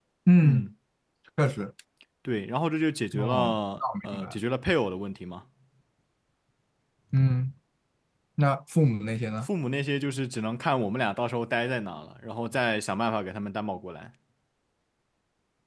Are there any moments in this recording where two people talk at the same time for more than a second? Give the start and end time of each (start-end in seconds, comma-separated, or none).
3.2-4.4